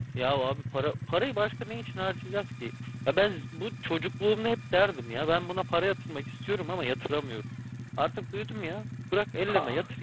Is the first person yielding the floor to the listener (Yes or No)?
Yes